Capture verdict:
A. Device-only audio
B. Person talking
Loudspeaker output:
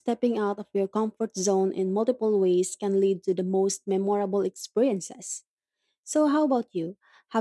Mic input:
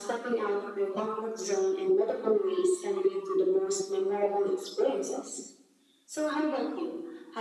A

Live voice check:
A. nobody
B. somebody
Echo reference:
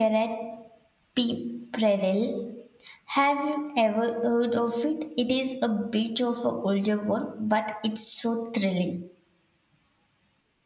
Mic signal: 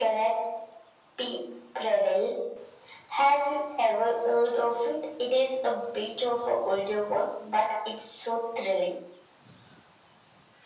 A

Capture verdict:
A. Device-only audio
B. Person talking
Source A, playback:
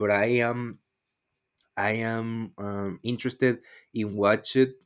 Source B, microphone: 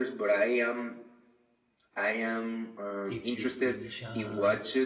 B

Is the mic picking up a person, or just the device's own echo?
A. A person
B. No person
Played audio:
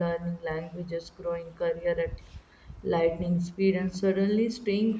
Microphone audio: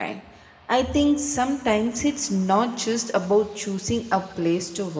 A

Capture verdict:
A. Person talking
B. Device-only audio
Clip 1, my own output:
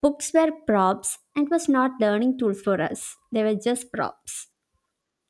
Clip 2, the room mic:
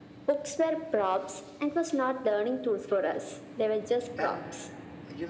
A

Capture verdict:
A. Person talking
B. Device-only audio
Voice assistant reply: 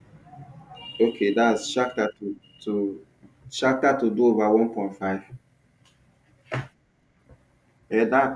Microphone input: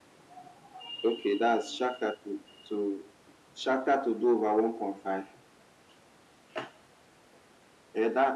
B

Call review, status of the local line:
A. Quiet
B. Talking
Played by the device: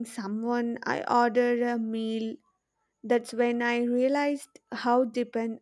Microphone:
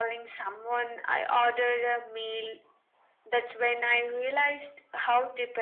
A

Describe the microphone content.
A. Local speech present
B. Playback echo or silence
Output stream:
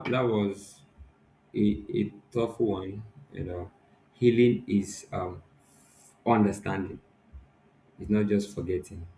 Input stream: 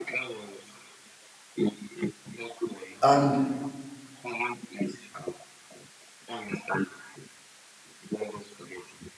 A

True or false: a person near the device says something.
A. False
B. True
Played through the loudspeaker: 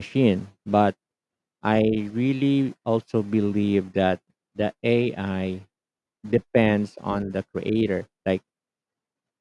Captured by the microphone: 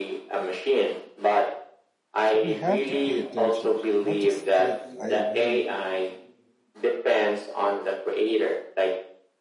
B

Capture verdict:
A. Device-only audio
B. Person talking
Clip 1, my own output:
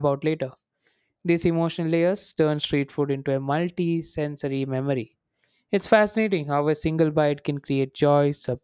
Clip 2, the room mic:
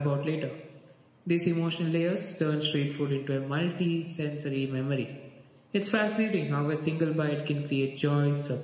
A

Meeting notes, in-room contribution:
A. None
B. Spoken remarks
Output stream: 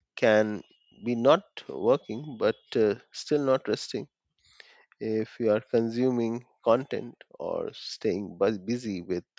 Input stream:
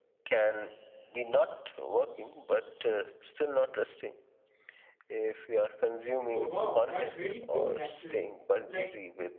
B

